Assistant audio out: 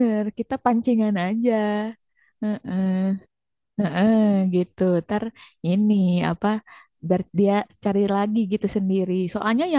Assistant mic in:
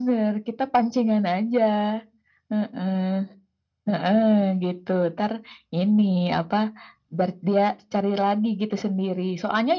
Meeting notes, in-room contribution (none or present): none